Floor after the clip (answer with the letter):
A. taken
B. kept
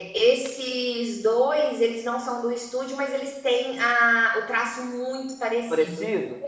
A